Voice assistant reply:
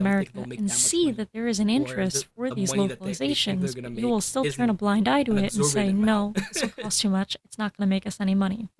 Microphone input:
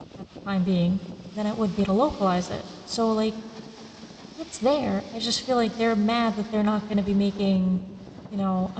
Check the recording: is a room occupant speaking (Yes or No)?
Yes